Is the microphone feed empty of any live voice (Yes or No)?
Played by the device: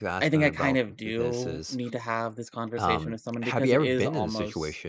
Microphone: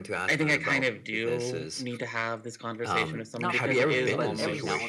No